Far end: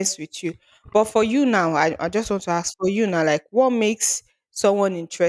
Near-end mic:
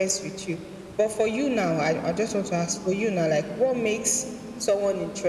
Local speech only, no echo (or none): none